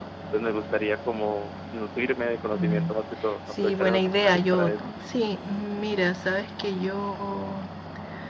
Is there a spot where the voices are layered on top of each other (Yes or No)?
Yes